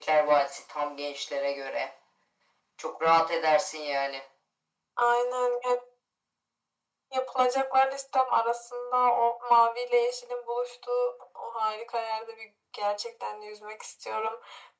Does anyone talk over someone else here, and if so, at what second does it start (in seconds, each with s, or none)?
none